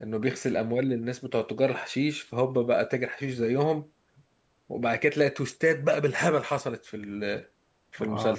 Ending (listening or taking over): taking over